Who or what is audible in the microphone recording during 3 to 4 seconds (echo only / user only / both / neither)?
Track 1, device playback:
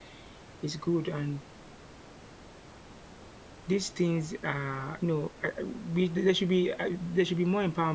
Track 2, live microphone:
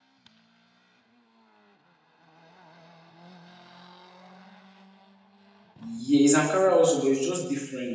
neither